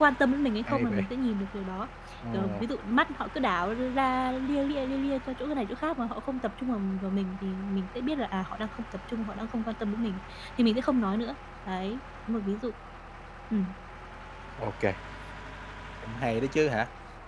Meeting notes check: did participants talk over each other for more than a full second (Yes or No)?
No